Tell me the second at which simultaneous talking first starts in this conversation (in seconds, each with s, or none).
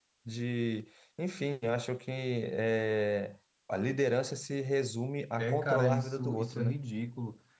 5.4 s